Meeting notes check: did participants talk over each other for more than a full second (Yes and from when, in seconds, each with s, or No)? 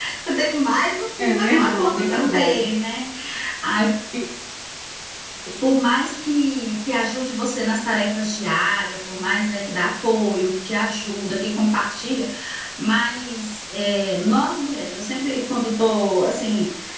Yes, from 1.2 s